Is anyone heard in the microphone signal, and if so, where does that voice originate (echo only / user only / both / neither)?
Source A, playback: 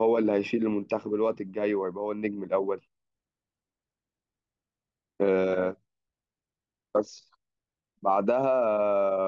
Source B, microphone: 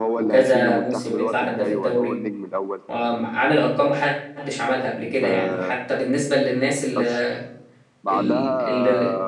both